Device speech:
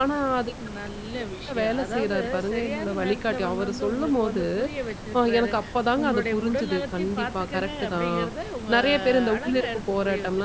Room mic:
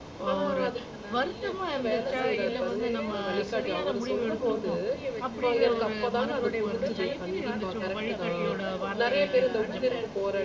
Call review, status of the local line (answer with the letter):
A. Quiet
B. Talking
B